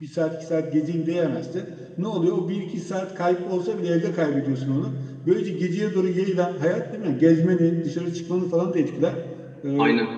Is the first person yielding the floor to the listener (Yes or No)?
No